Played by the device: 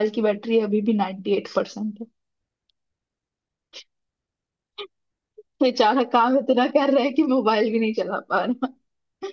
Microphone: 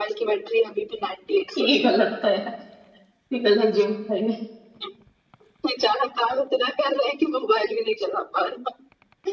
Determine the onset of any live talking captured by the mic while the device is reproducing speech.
1.6 s

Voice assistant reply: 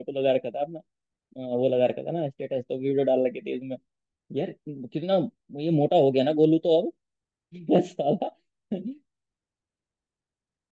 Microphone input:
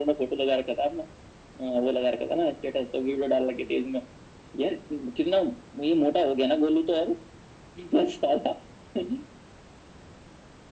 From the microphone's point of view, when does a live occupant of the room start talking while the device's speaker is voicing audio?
none

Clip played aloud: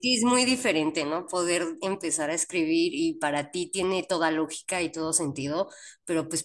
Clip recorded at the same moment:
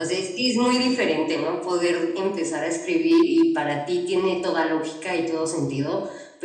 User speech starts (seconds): none

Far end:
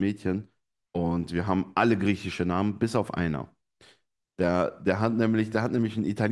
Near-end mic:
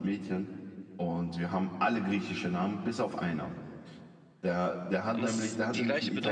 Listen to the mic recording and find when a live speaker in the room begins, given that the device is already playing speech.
5.1 s

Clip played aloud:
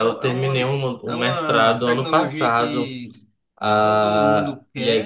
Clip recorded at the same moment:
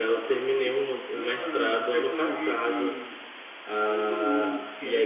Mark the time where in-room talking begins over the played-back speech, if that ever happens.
none

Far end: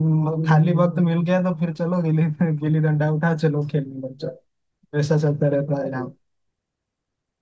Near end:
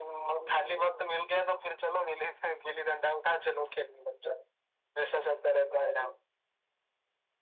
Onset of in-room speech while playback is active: none

